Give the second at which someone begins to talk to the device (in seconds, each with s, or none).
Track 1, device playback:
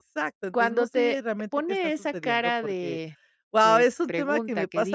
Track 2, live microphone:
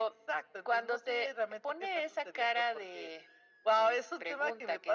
none